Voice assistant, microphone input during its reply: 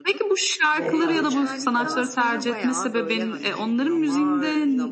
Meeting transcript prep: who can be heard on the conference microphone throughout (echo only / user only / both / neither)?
both